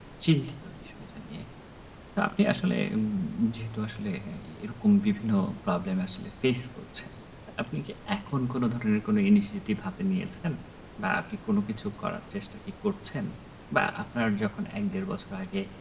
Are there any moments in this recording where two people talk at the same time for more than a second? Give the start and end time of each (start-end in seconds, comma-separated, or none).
none